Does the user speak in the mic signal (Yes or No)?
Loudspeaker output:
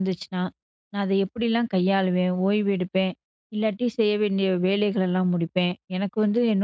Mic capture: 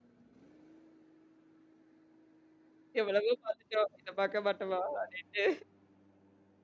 Yes